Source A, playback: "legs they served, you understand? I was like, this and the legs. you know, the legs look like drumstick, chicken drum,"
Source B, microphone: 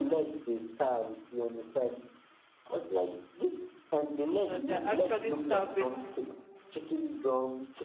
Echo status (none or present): present